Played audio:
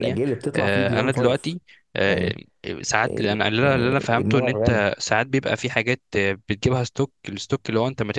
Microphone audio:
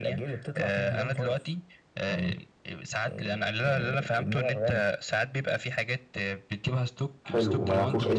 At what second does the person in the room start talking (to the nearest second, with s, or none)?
7 s